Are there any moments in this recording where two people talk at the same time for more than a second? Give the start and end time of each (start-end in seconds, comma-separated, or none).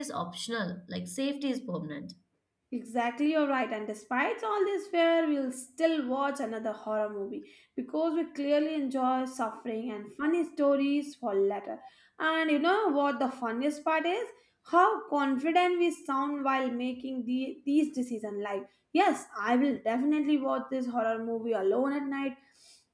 none